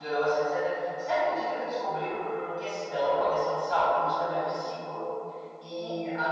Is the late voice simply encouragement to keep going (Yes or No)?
Yes